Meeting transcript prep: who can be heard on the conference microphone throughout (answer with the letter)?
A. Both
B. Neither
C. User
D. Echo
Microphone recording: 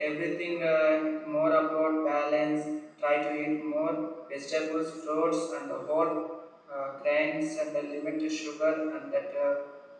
D